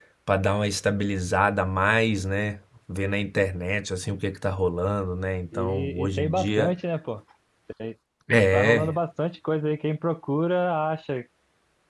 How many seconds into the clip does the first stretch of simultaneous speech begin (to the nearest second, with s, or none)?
6 s